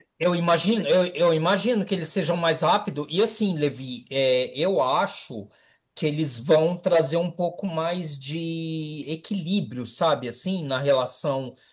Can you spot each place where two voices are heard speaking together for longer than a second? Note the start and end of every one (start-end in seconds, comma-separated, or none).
none